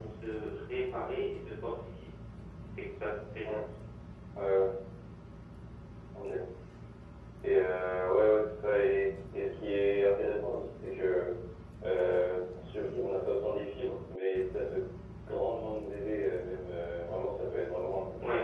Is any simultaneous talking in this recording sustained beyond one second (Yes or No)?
No